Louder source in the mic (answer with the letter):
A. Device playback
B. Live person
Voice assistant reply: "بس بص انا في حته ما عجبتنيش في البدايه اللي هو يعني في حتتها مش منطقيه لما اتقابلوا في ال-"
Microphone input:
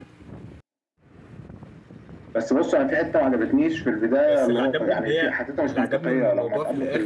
A